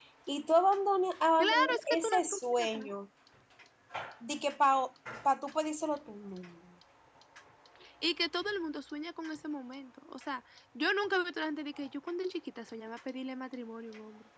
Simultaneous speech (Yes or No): Yes